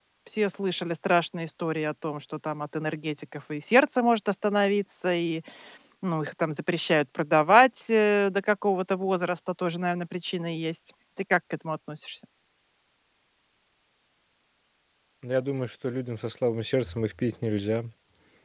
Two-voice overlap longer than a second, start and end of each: none

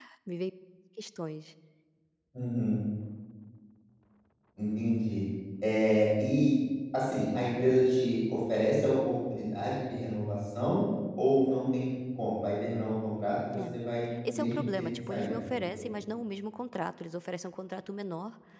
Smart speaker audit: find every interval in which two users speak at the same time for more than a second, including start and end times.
14.3-15.8

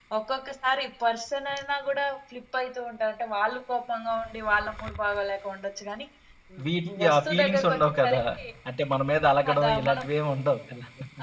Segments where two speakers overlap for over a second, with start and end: 6.9-8.2

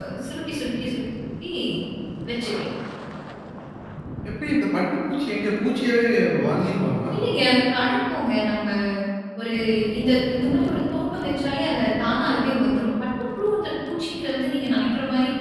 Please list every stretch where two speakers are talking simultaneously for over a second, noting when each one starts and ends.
none

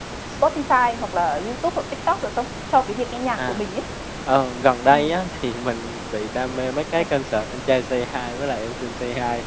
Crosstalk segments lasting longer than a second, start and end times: none

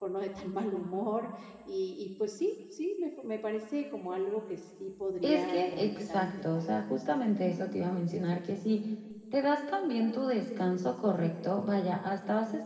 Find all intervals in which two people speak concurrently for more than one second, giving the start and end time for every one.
5.2-6.6

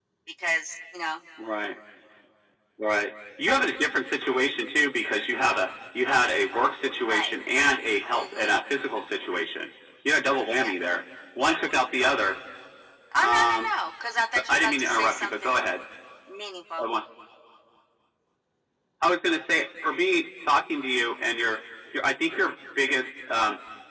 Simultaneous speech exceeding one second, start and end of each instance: 14.3-15.6

